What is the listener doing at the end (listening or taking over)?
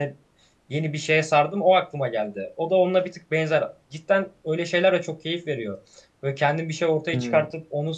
listening